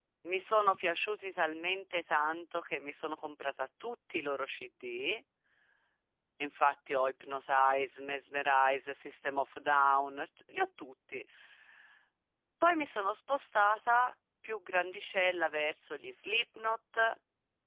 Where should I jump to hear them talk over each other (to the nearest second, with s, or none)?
none